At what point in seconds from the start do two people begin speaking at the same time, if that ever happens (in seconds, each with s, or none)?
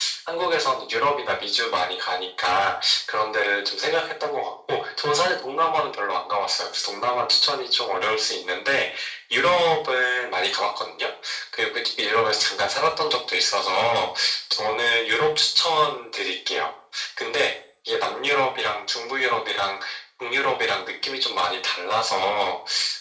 none